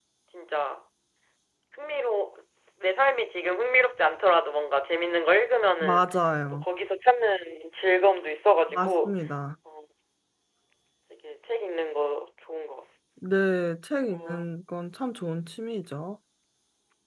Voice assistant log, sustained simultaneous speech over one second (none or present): none